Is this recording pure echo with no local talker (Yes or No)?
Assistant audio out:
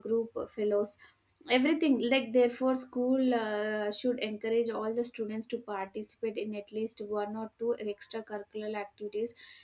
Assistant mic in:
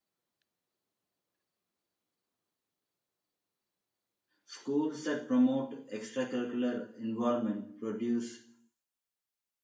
No